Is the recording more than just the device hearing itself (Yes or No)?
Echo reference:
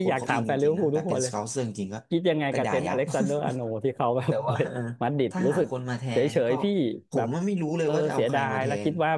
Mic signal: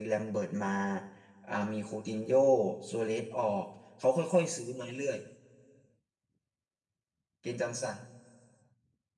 Yes